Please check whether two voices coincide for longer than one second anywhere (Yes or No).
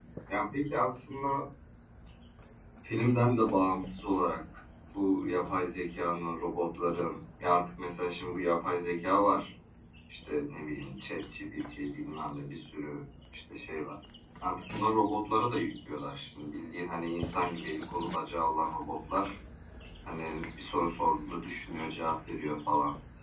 No